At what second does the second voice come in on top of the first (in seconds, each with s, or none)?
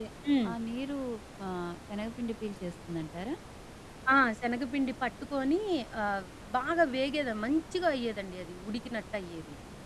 none